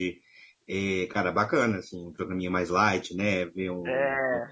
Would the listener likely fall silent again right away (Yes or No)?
Yes